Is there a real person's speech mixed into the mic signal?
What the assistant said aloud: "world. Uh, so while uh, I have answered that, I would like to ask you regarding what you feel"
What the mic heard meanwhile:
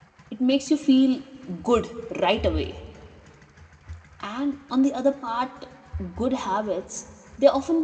Yes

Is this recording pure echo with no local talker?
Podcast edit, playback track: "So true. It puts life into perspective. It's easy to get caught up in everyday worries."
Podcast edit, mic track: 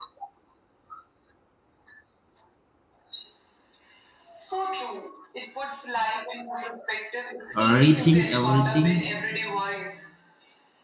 No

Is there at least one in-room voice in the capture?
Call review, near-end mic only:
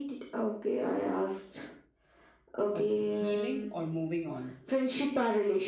Yes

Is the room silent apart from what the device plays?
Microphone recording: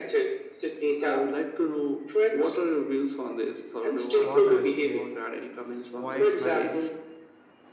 No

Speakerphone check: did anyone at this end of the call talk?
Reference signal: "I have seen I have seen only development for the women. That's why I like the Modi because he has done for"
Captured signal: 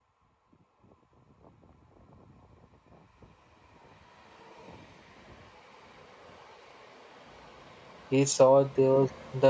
Yes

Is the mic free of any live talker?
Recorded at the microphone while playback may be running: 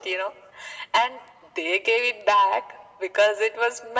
Yes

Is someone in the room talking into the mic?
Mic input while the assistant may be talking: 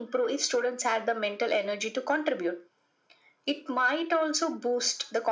No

